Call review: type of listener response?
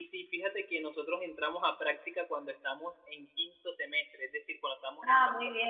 taking over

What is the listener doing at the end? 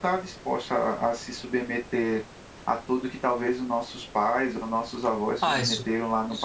taking over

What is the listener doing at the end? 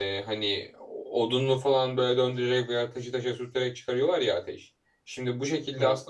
listening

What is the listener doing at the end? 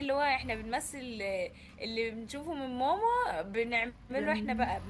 listening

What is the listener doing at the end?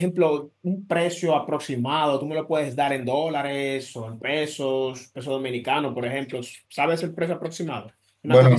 taking over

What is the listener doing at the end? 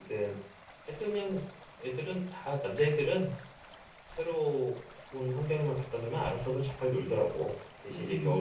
listening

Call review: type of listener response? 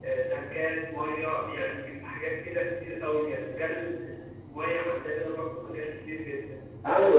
taking over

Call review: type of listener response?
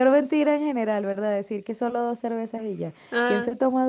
listening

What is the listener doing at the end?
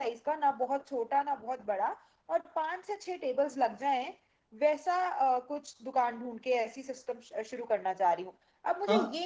listening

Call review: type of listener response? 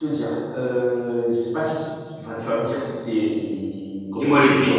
taking over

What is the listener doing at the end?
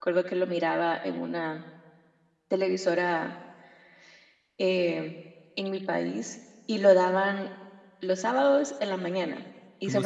taking over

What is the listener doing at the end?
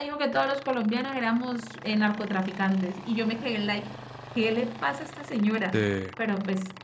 listening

